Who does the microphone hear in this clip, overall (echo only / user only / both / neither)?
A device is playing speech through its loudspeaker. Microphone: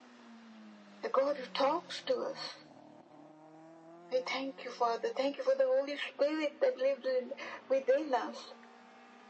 echo only